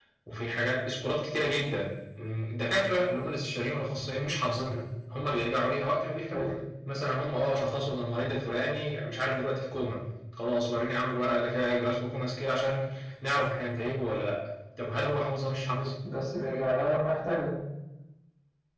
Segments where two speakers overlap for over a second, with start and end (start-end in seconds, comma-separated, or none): none